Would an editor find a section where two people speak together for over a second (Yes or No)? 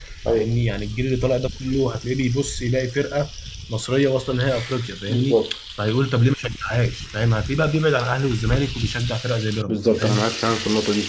No